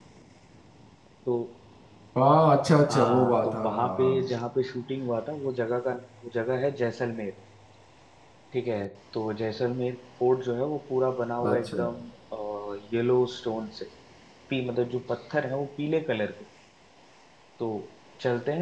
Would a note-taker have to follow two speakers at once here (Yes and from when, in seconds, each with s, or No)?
Yes, from 2.9 s